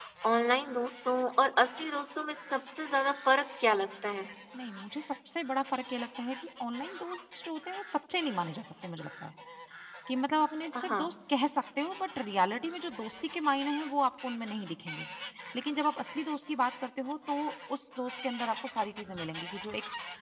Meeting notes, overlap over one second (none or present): none